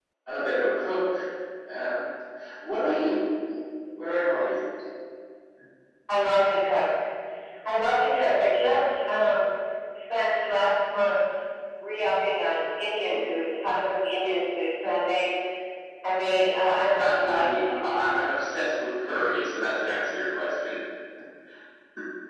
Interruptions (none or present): present